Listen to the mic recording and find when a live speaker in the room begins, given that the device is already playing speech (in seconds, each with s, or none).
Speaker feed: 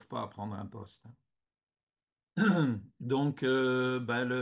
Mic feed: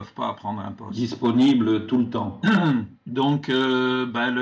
0.9 s